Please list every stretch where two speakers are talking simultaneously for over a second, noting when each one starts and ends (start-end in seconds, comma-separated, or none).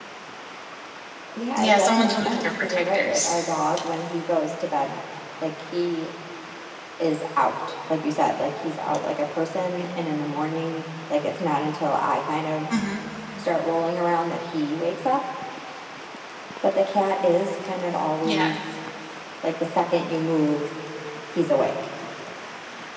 1.6-3.3